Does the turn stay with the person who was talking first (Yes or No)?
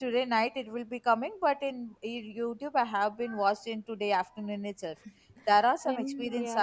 Yes